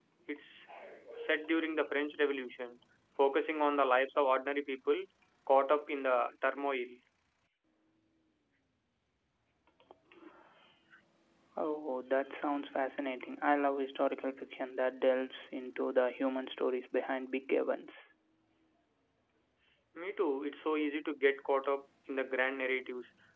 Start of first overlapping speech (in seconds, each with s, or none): none